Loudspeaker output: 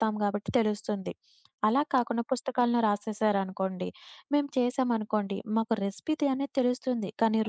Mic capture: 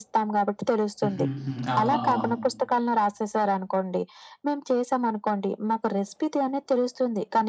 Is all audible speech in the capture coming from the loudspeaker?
No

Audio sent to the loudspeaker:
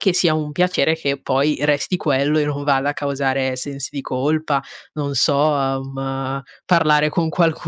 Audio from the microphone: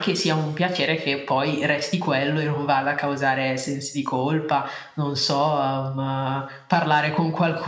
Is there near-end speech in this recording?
No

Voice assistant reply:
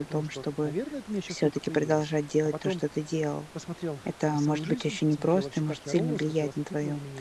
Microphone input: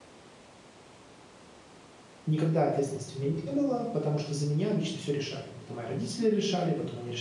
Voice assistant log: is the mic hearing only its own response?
No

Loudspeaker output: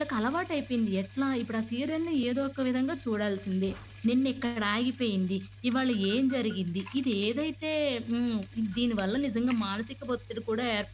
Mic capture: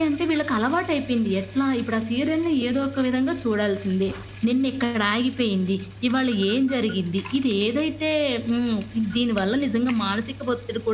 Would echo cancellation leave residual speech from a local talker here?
No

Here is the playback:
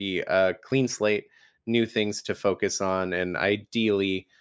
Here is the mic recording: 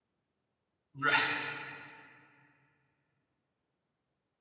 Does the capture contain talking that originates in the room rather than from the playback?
Yes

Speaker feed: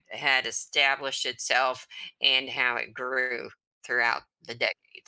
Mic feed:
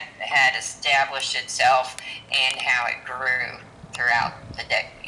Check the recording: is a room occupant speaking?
No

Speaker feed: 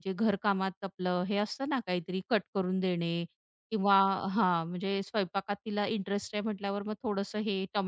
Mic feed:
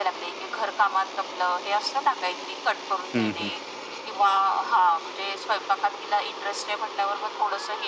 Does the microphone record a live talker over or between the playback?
Yes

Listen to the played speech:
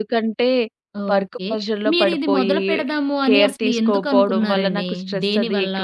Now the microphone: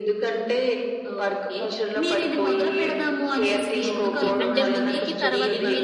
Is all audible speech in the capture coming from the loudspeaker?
No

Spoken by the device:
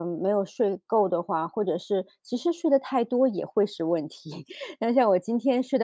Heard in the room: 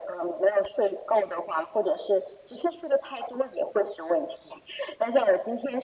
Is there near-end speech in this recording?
No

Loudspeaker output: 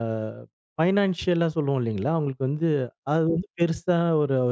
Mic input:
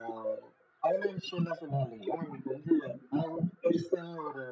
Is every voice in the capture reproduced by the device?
Yes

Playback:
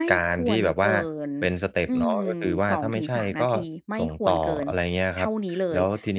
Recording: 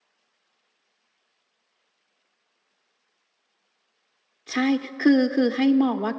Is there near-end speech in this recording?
Yes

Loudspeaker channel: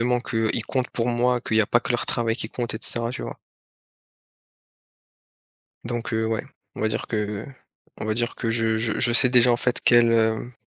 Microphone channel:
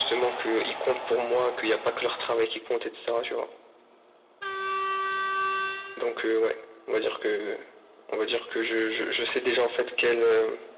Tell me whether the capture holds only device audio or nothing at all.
Yes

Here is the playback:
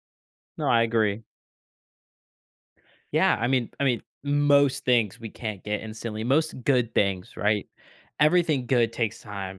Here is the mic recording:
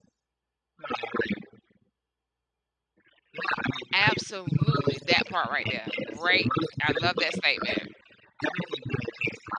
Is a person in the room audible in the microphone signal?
Yes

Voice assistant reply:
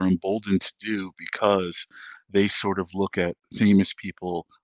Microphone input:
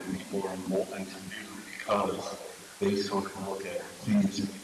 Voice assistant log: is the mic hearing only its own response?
Yes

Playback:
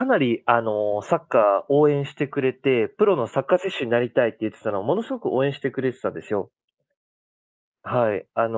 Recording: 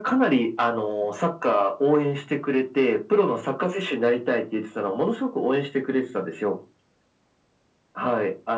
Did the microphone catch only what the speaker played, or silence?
Yes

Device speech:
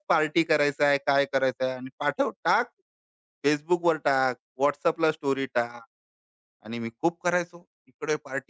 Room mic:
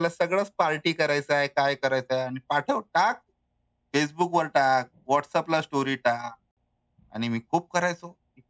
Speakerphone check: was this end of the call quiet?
Yes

